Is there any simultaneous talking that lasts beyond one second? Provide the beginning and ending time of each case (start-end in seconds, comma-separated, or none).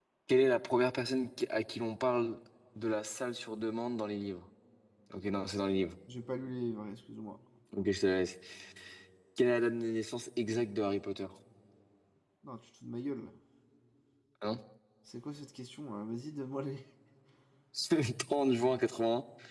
none